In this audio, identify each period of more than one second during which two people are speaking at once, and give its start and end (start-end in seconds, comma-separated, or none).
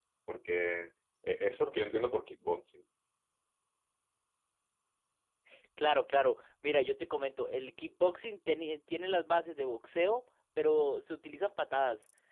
none